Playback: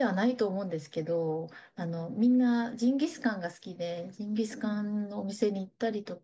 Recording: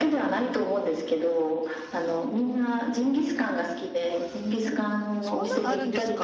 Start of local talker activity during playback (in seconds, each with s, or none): 5.2 s